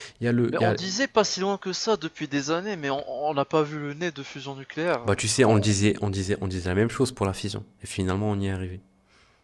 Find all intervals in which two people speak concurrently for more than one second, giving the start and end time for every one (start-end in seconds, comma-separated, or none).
none